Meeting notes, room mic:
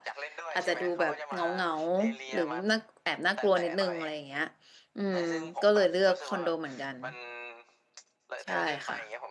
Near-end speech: present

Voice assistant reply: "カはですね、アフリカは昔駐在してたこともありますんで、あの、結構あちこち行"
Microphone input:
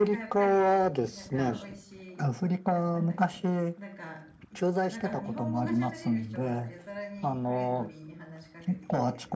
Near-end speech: present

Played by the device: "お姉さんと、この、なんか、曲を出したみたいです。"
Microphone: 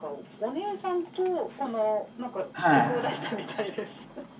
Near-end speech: present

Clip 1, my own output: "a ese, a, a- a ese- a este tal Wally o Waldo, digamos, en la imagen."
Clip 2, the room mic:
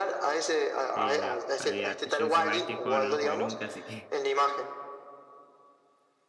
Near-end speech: present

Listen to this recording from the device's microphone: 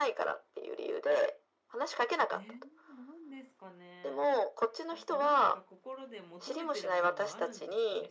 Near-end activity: present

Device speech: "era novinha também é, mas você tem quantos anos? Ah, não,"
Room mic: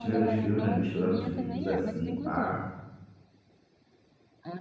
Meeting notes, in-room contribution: present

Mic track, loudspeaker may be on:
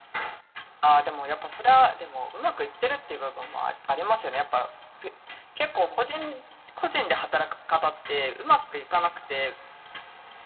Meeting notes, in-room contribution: none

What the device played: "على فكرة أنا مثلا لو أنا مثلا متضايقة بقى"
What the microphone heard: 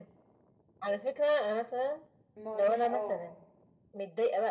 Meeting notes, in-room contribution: present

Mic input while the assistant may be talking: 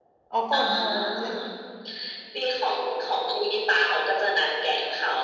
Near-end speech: present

